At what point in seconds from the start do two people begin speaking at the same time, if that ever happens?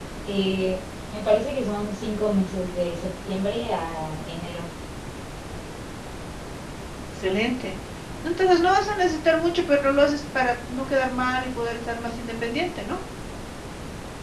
none

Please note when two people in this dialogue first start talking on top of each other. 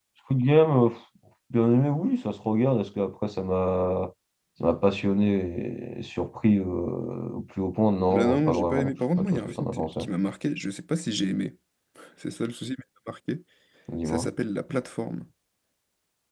8 s

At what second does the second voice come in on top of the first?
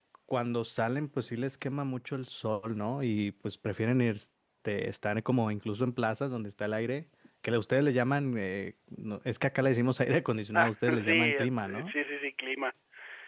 11 s

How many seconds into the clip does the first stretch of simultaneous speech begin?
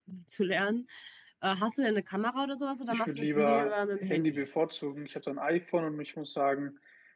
3 s

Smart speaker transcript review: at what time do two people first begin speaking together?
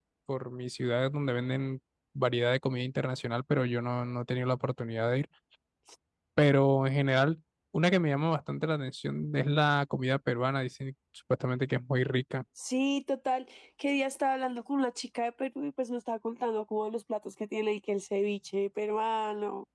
none

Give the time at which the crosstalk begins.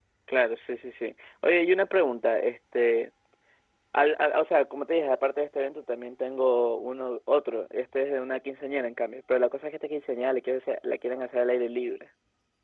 none

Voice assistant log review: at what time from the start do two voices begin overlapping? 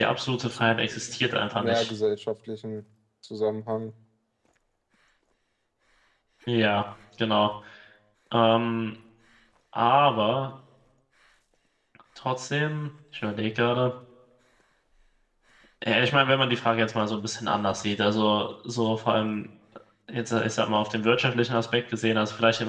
1 s

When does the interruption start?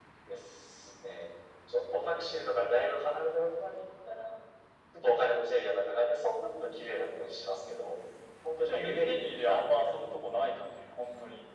9 s

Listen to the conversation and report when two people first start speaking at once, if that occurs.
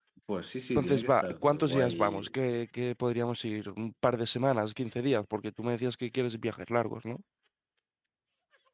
1 s

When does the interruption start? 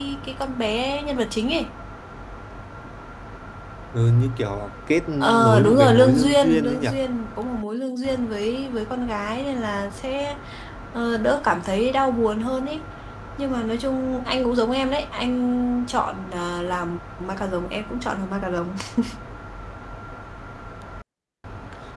5 s

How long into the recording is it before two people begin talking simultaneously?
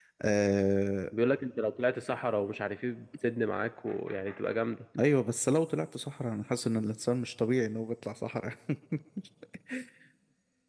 none

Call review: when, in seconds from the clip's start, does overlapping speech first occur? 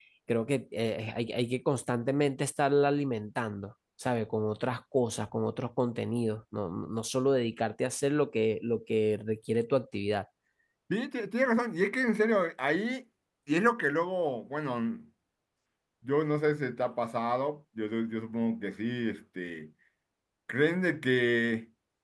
none

